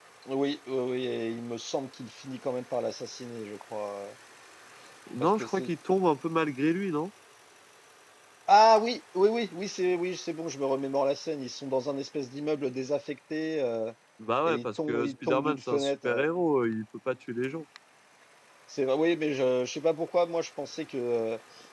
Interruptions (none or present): present